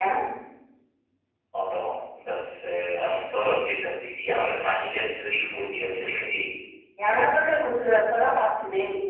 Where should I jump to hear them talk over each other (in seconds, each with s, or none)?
none